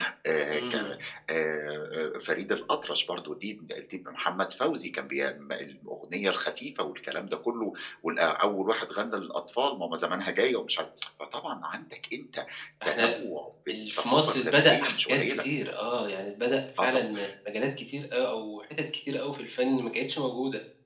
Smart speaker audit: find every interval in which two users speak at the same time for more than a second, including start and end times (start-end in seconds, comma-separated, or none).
13.9-15.4